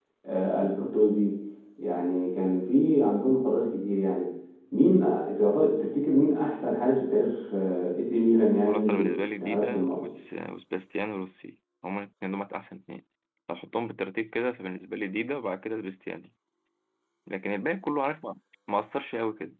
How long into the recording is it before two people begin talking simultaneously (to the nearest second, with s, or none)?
9 s